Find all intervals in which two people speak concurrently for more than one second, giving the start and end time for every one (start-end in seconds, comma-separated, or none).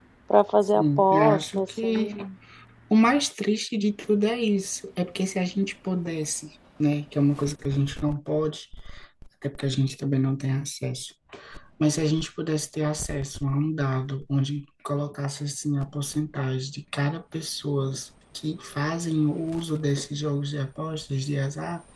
0.8-2.1